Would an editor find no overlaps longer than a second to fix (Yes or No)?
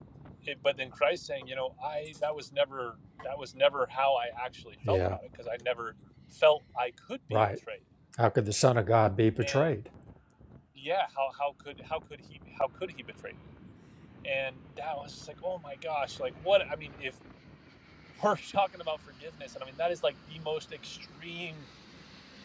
Yes